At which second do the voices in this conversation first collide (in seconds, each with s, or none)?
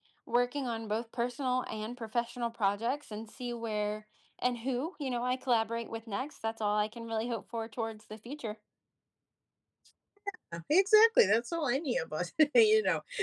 none